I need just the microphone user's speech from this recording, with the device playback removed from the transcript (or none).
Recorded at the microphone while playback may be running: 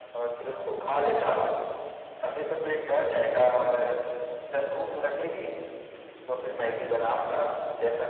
none